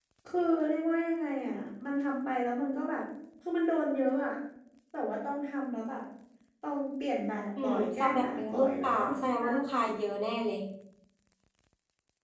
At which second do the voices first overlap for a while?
7.6 s

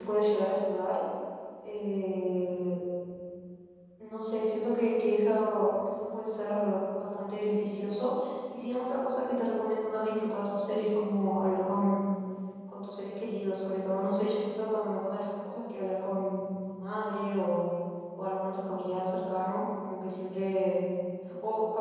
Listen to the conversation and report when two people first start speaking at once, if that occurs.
none

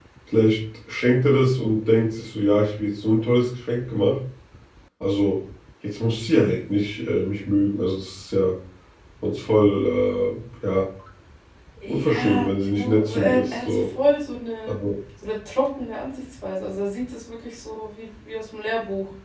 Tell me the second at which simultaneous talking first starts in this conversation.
11.9 s

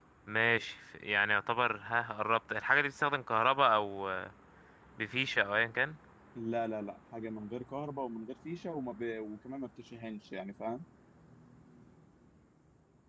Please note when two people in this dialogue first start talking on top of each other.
none

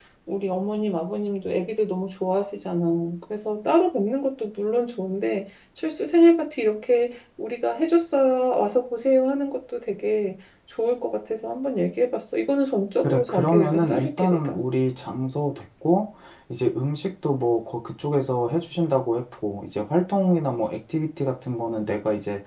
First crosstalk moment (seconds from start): 13.0 s

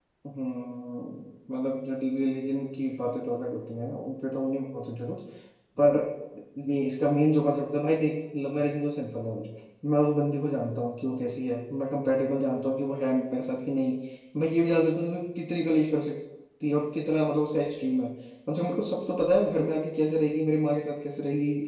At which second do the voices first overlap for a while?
none

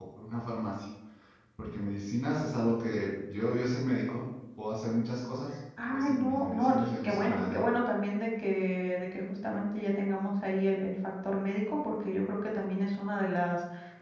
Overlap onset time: 5.8 s

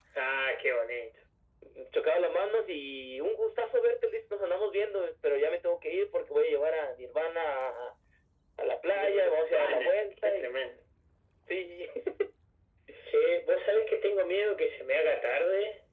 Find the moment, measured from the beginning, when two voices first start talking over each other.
8.9 s

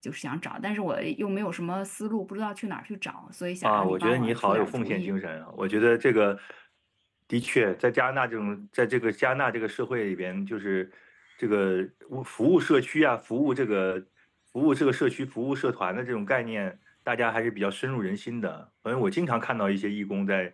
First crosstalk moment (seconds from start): 3.6 s

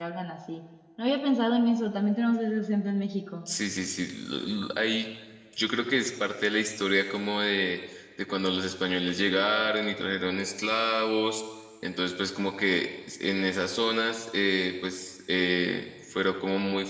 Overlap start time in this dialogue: none

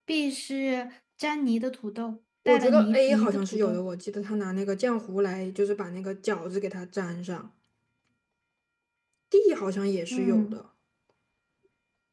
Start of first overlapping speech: 2.5 s

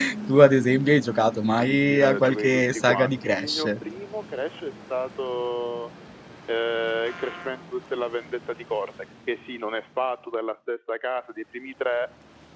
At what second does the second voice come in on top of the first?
1.5 s

